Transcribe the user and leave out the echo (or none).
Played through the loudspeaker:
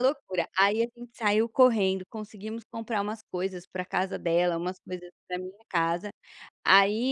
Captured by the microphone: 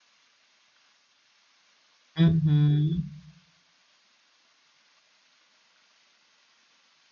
Uhum.